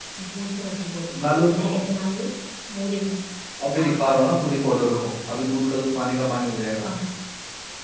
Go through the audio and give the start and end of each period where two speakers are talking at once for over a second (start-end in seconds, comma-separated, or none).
none